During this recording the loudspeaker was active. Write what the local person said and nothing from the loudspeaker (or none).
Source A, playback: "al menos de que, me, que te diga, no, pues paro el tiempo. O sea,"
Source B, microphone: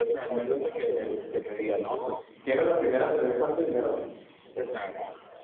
¿Qué era la primera a tener cuánto dinero?